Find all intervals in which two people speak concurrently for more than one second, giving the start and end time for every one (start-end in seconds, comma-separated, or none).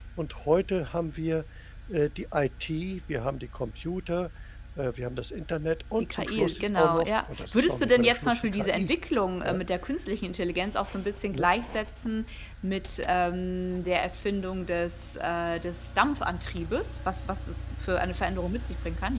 6.0-8.9